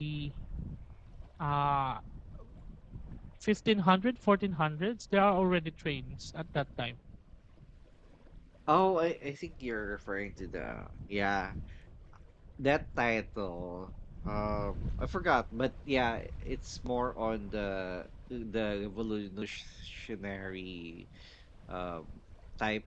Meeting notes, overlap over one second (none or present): none